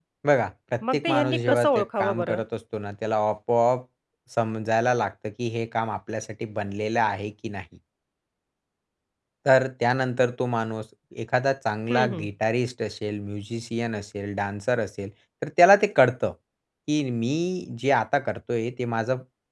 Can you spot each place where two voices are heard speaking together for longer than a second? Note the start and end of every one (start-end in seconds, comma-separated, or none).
0.8-2.4